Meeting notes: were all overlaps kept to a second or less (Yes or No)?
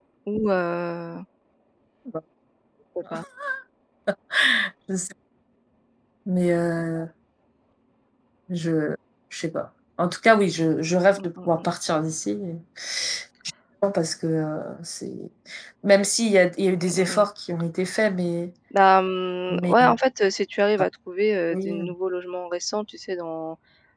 Yes